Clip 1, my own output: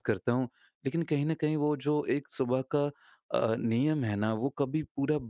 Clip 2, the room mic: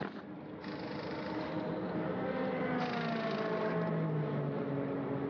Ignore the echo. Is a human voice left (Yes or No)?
No